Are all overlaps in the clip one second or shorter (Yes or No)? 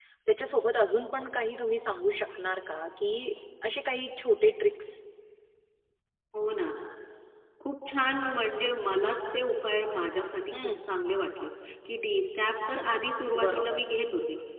Yes